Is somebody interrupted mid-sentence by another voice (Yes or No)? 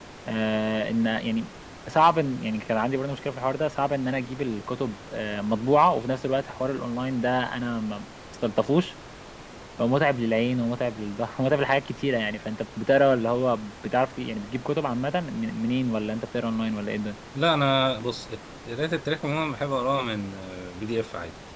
No